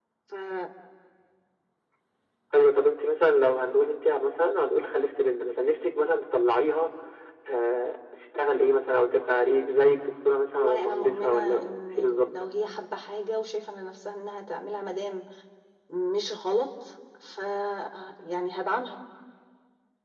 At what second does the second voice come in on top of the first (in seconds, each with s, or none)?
10.6 s